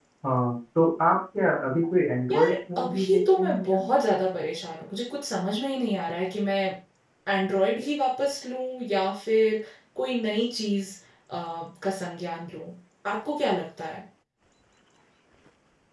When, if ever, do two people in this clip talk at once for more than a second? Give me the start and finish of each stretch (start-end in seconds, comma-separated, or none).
2.3-3.8